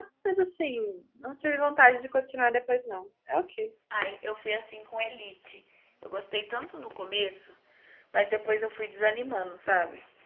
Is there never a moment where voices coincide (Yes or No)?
Yes